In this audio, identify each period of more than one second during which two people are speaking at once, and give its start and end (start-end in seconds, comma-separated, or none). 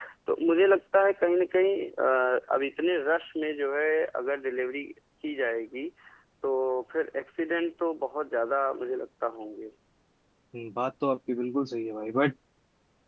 none